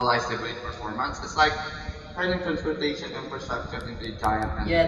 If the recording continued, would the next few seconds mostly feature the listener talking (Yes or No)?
Yes